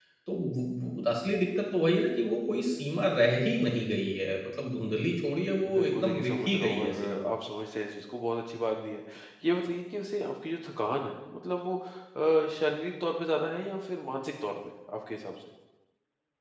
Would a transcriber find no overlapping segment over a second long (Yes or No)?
No